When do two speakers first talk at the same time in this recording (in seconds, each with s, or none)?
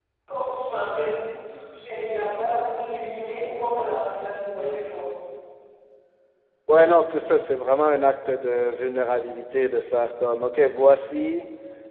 none